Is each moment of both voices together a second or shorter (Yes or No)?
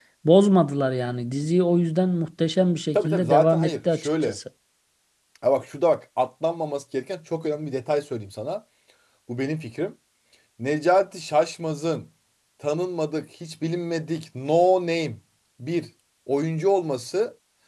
No